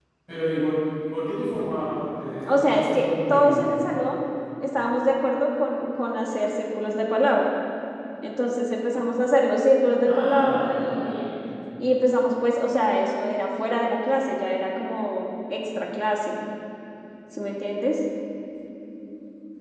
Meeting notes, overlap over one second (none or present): present